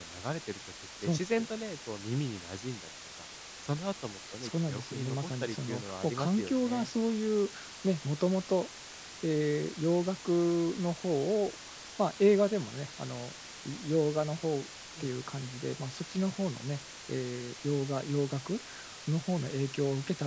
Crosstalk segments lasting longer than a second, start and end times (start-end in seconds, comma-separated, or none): 4.4-6.9